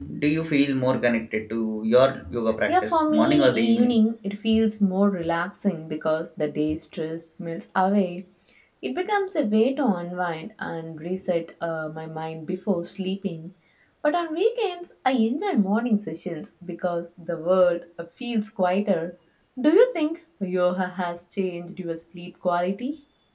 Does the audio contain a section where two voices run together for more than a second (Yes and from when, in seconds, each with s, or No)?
Yes, from 2.7 s